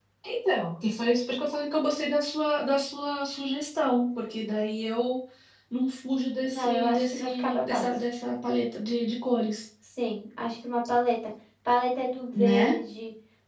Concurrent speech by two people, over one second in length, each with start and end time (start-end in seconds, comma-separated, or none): 6.4-7.8